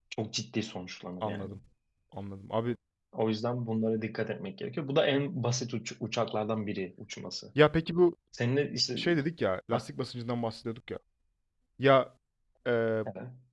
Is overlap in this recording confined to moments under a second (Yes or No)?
Yes